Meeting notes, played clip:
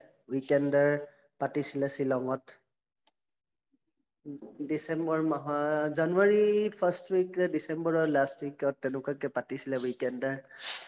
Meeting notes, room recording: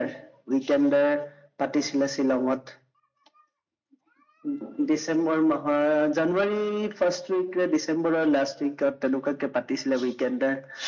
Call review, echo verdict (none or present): present